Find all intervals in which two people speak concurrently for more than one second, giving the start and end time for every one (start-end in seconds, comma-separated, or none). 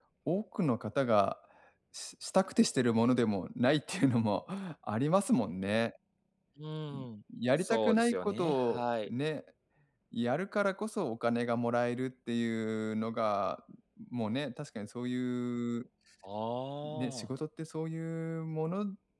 7.6-9.1